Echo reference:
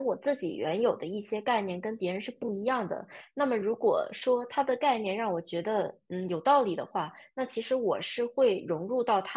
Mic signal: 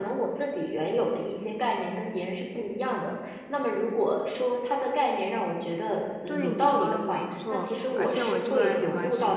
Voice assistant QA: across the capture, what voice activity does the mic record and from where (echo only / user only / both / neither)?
both